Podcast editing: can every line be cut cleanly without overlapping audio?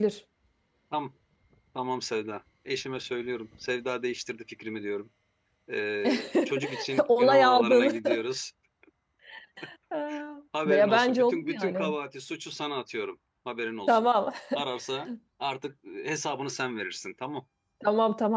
No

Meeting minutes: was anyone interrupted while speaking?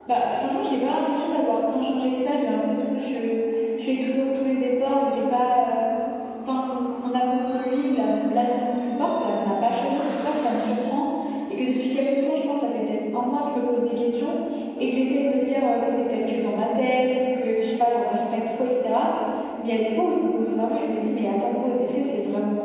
No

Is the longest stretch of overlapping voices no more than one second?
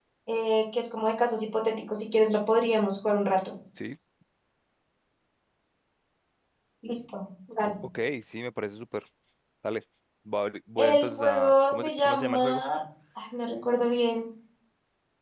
No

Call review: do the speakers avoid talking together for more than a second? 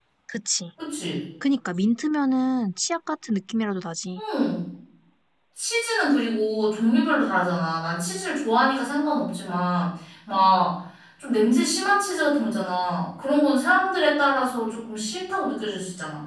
Yes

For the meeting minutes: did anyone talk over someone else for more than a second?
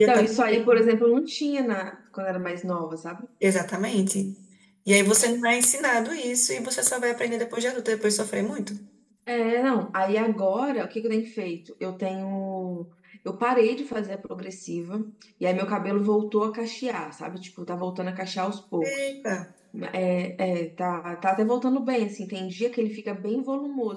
No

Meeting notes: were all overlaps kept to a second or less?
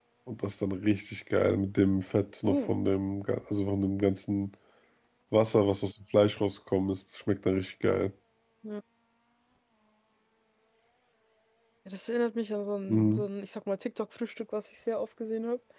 Yes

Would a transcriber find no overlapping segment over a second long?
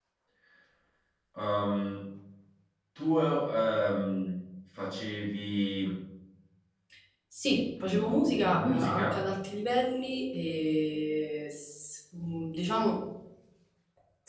No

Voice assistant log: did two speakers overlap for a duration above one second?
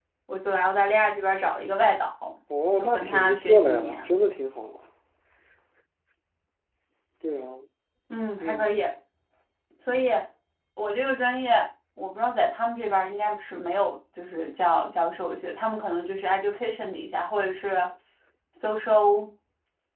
Yes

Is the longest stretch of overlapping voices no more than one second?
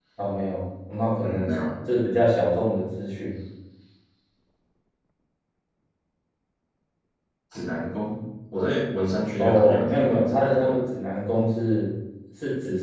No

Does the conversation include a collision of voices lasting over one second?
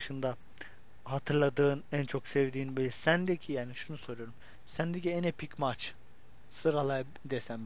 No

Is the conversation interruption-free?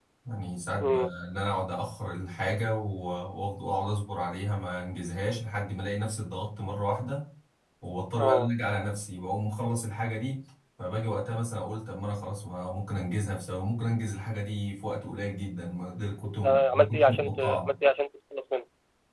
No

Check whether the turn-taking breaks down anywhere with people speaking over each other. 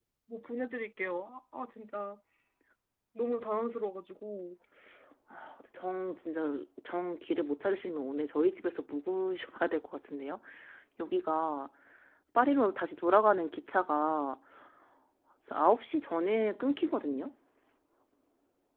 No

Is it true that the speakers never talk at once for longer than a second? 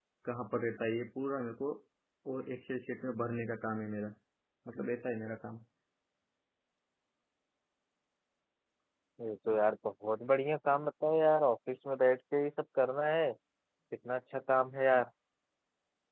Yes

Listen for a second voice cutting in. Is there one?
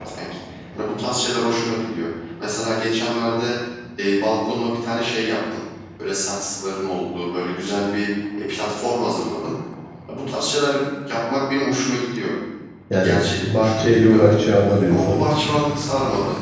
Yes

